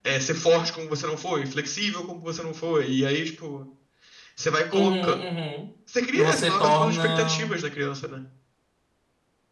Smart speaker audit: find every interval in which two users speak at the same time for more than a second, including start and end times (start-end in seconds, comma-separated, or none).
6.1-7.5